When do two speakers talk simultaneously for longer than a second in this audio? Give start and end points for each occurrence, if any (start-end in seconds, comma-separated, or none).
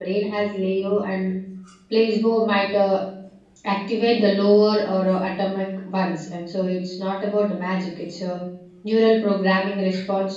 none